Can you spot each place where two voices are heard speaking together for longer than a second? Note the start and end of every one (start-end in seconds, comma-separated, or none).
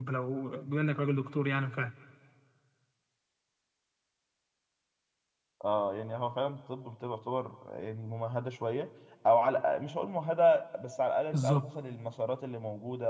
none